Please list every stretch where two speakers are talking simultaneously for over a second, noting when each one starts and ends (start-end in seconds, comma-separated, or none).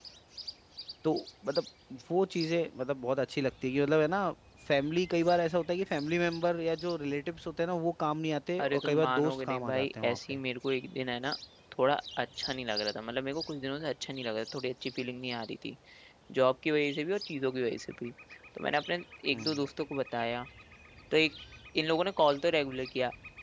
8.6-10.4